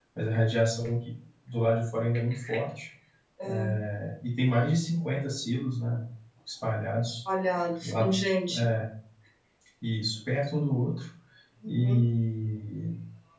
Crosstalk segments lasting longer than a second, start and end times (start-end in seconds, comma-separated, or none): none